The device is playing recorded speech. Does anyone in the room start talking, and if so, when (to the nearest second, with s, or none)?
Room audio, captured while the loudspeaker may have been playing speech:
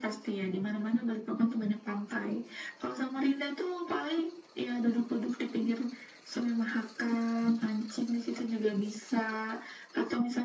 none